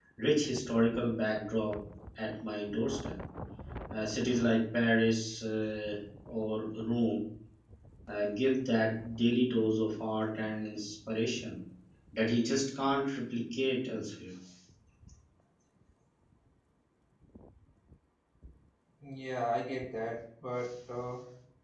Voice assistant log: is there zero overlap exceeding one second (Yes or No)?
Yes